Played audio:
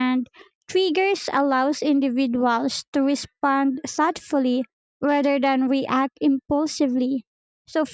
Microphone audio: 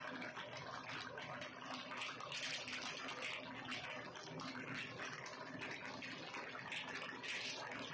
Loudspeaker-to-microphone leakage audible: No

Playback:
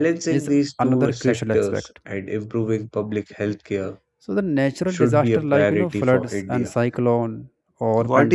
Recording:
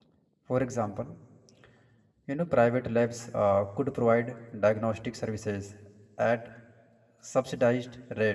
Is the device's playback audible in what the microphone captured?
No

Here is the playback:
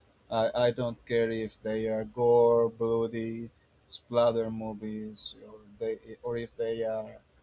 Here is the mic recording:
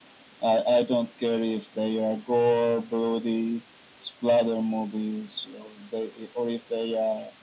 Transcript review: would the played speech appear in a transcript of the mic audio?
Yes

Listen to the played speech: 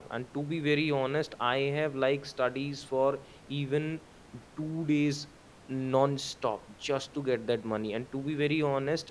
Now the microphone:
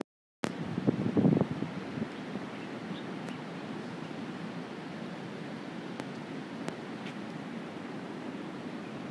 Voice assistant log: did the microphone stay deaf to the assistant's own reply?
Yes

